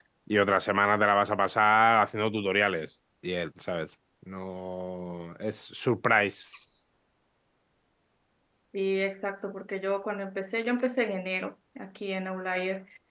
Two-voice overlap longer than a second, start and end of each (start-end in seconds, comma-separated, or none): none